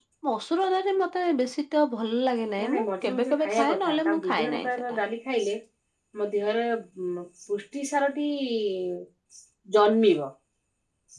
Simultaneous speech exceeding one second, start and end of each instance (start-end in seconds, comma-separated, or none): 2.6-5.0